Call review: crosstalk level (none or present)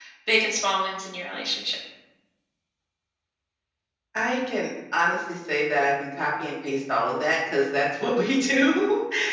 none